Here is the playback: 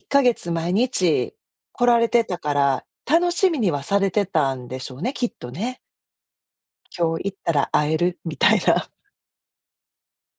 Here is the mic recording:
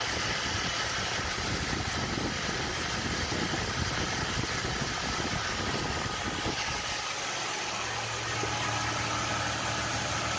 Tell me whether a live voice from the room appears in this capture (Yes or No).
No